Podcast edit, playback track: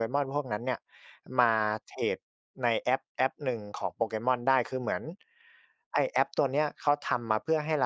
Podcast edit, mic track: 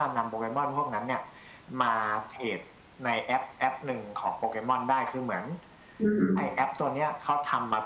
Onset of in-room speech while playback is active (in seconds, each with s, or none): 6.0 s